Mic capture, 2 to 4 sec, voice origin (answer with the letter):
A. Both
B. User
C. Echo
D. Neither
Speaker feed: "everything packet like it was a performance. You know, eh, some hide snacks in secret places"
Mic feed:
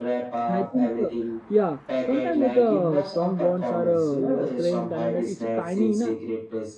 A